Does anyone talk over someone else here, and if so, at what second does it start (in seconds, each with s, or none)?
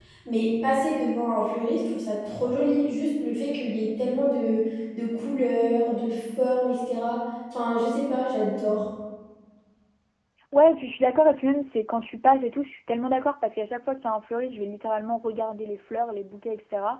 none